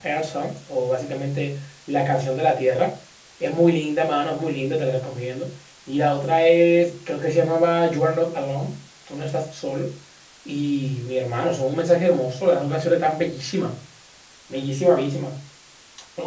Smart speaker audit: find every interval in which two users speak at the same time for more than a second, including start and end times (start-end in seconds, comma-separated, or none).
none